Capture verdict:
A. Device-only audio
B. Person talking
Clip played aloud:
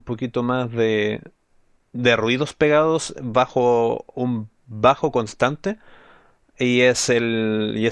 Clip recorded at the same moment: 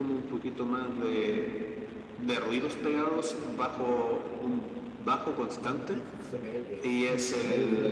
B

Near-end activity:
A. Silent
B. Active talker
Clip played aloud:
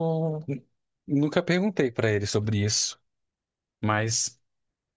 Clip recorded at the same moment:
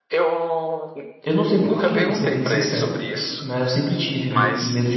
B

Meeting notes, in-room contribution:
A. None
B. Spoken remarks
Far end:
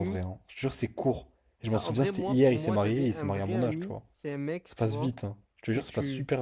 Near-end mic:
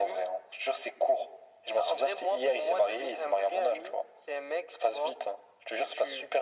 A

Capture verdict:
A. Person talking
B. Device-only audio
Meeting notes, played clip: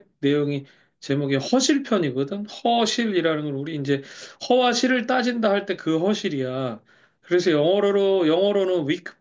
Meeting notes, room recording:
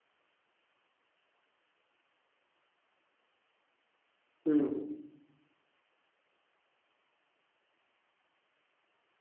A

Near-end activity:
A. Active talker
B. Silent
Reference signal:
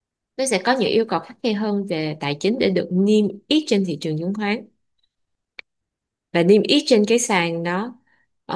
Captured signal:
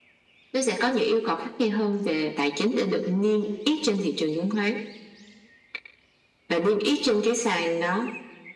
B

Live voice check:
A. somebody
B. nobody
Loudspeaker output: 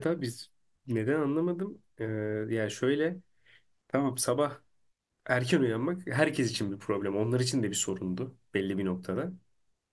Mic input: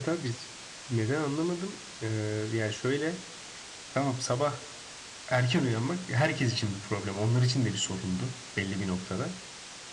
B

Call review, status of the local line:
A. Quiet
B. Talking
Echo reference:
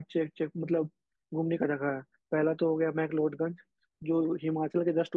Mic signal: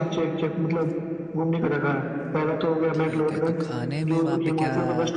B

